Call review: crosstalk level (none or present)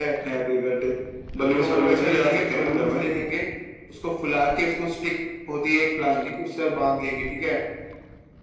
present